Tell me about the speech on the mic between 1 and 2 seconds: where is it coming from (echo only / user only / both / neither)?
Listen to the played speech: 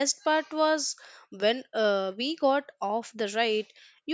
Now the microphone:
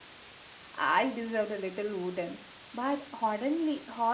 user only